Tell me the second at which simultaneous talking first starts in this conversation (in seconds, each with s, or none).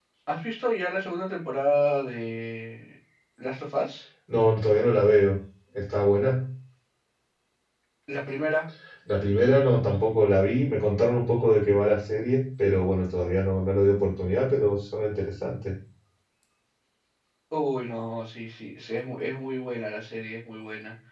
none